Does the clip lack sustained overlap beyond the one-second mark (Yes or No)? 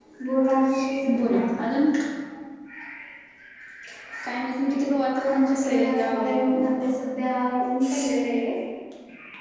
No